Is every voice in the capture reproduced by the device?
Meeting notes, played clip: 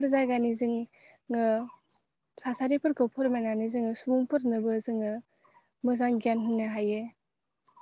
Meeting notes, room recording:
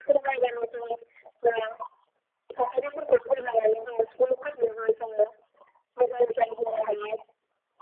Yes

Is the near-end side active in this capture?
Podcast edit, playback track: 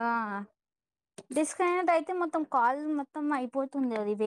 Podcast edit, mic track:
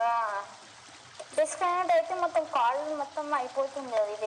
No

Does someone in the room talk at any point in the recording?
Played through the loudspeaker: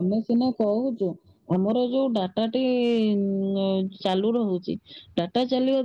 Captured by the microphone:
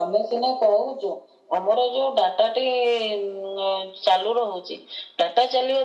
No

